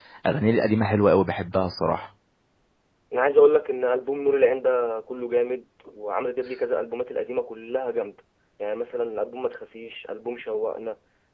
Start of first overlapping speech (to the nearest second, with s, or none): none